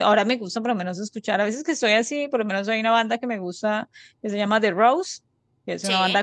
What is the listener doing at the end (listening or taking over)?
listening